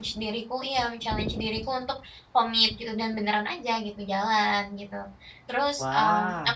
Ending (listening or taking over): listening